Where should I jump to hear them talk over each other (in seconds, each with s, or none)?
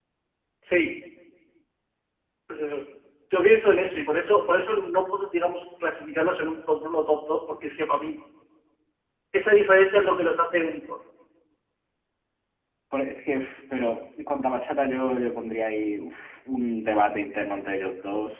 none